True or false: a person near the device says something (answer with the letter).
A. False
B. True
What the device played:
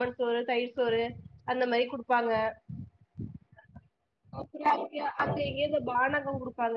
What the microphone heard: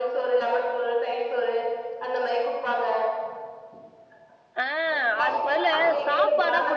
B